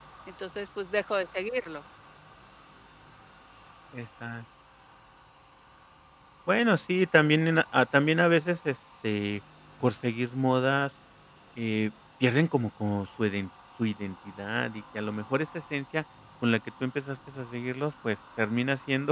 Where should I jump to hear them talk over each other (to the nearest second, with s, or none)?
none